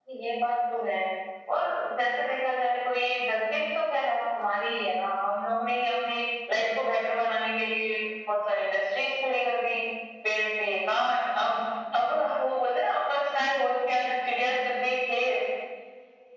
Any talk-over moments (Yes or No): No